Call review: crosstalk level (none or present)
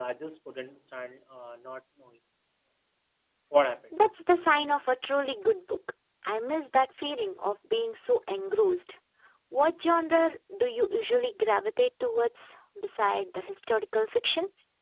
none